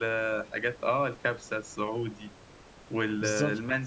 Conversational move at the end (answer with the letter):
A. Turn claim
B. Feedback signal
B